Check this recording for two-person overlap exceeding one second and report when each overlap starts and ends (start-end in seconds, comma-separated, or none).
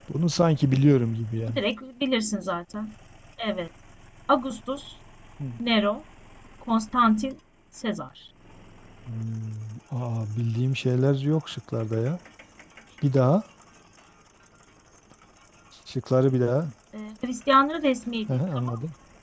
none